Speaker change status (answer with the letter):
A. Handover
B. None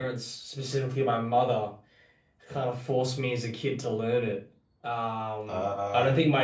B